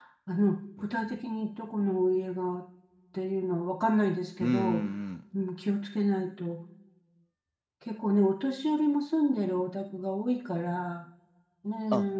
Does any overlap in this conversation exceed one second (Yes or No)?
No